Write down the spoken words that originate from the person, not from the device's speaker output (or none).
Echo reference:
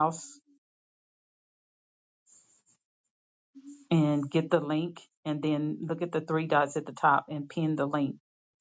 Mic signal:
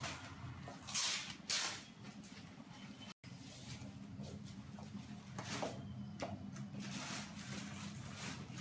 none